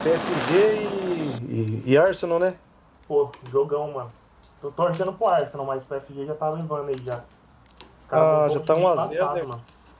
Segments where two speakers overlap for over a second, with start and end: 8.1-9.4

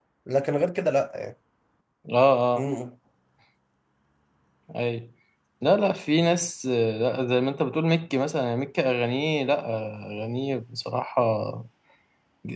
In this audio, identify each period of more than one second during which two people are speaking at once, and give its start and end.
none

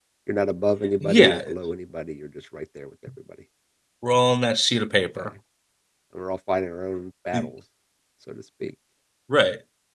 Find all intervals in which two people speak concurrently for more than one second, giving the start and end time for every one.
none

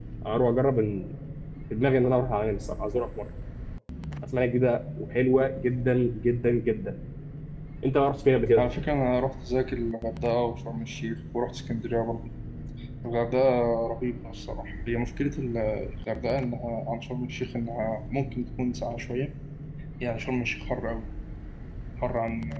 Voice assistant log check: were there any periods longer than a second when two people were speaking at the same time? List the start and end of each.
none

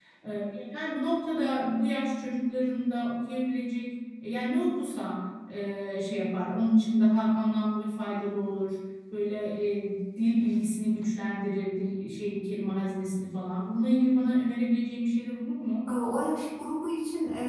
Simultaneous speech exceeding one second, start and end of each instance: none

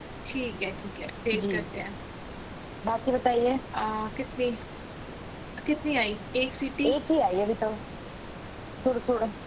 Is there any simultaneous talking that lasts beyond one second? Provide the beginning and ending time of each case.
none

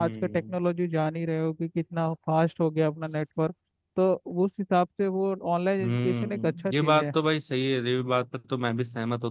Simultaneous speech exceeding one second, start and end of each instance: 5.8-7.1

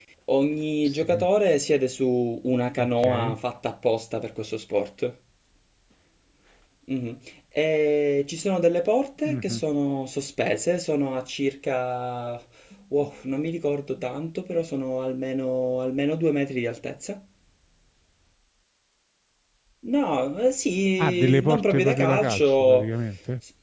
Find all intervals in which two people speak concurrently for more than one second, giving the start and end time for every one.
21.0-22.9

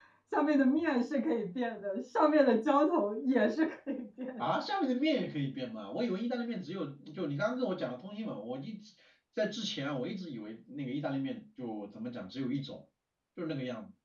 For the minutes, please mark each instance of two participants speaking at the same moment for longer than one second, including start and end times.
none

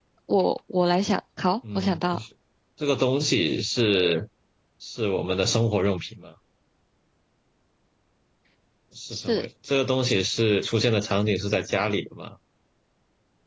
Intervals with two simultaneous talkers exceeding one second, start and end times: none

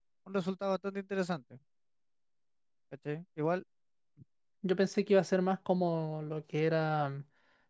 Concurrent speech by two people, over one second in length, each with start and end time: none

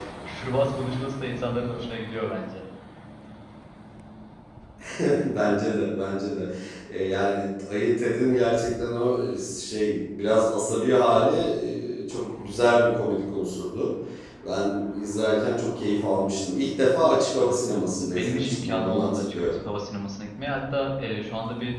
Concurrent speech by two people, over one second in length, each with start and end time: 17.1-19.6

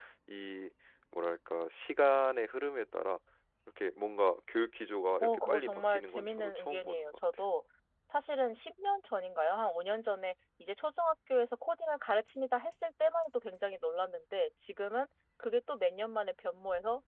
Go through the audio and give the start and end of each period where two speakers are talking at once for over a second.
5.2-7.2

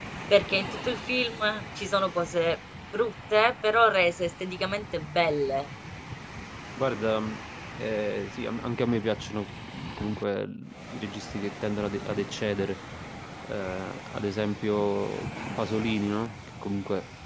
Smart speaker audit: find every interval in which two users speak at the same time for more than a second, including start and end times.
none

